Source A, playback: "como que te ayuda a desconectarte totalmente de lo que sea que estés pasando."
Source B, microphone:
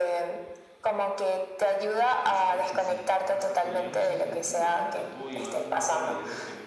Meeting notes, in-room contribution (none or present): present